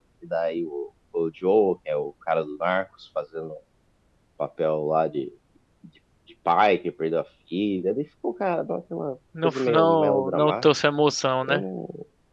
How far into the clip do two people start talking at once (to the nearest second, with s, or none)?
9 s